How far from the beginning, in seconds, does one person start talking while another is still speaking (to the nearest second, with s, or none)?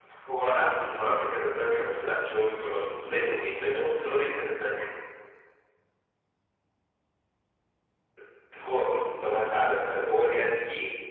2 s